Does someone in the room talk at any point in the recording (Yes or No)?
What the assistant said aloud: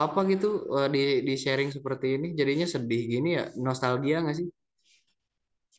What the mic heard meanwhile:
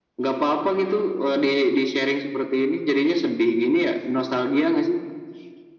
No